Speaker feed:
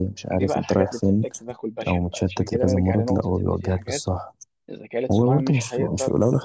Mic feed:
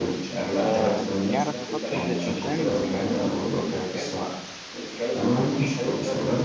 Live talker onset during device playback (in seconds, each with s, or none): 0.6 s